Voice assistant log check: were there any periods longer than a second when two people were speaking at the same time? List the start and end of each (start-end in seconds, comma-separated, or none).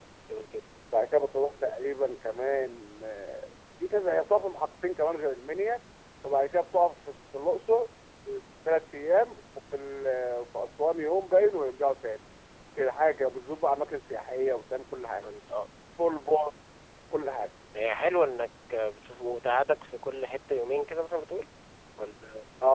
none